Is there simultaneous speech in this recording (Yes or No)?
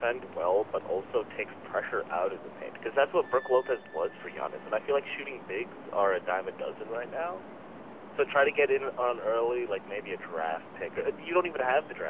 No